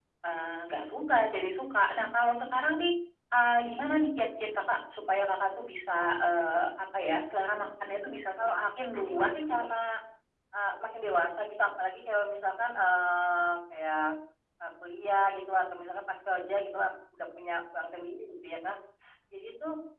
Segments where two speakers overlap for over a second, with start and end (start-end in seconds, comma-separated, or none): 8.1-9.7